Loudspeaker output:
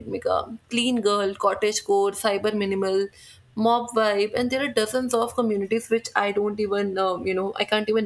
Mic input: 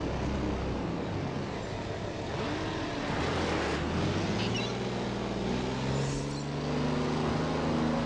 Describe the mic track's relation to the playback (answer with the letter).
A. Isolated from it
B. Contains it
A